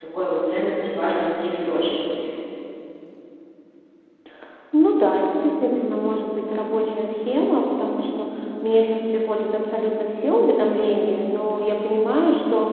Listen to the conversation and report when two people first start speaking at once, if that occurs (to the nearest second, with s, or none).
none